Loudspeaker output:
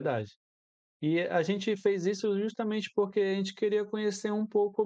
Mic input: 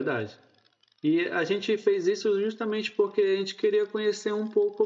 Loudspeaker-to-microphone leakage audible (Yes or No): Yes